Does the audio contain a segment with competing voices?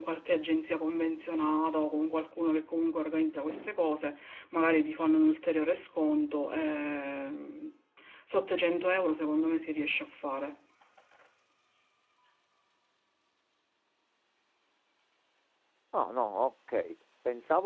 No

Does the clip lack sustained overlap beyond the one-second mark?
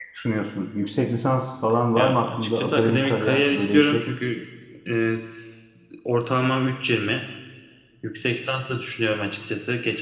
No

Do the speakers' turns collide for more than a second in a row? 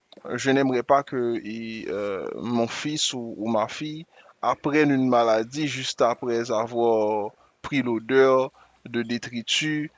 No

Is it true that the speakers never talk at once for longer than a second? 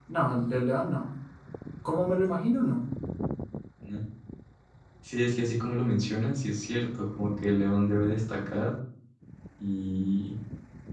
Yes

